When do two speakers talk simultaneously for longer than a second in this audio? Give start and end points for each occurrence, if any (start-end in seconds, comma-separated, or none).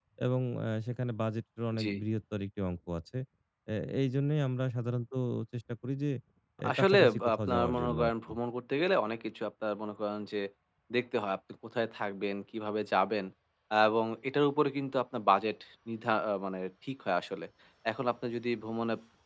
6.8-8.3